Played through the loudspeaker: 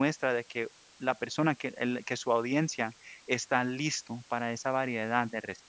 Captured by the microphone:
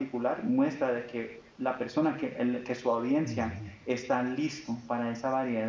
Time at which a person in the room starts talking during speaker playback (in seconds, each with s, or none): 3.2 s